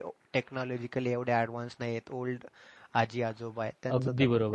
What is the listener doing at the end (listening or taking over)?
taking over